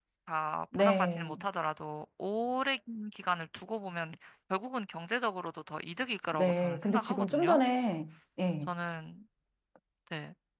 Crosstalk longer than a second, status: present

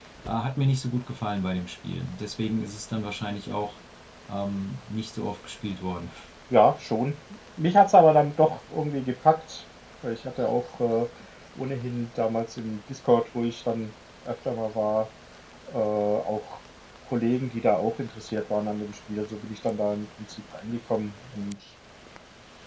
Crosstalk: none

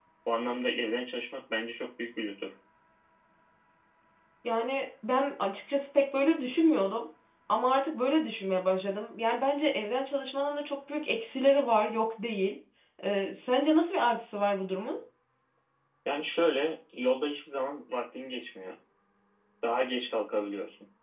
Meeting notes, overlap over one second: none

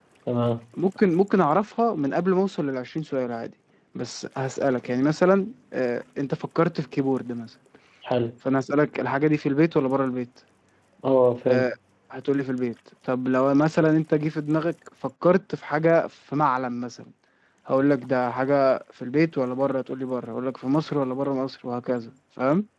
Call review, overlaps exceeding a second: none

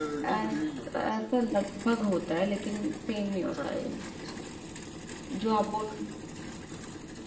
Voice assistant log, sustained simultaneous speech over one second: none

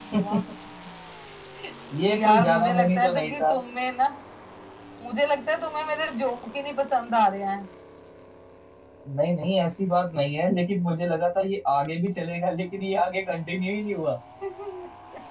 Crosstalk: present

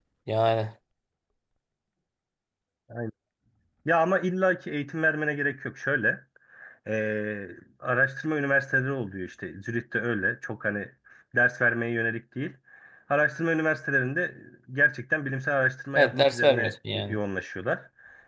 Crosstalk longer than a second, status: present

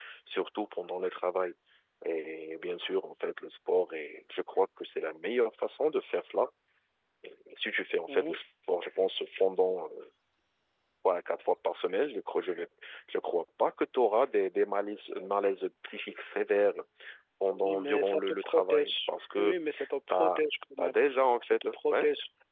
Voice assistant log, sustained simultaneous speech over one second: present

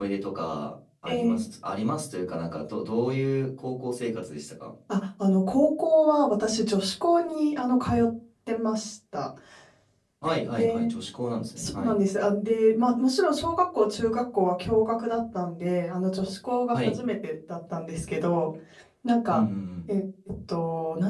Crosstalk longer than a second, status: none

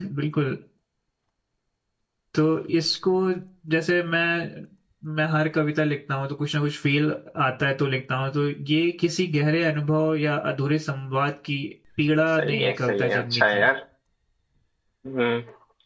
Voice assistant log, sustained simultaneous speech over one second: present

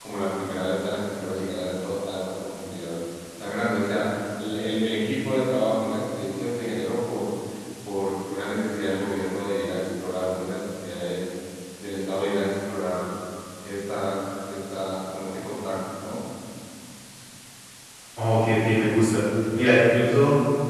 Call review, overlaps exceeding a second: none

